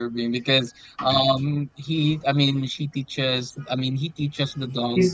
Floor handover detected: No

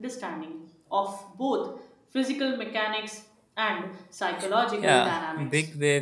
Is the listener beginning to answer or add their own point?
Yes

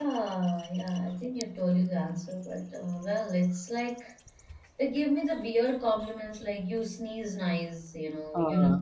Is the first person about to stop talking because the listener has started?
No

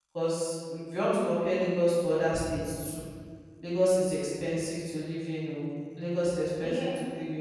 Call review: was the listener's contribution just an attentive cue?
No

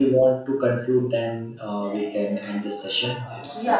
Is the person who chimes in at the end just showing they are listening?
No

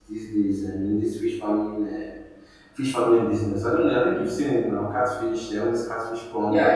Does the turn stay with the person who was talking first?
No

